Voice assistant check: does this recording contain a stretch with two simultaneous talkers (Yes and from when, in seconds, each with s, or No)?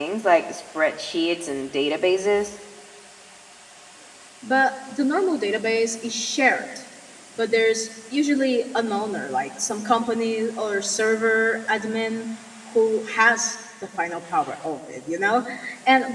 No